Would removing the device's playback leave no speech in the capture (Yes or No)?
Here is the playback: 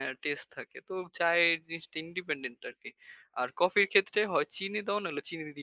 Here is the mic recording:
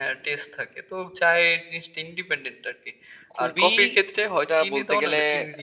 No